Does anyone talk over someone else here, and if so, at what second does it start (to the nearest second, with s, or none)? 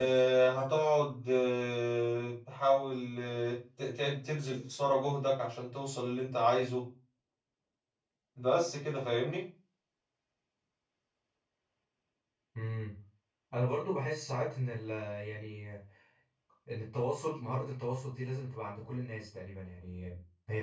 none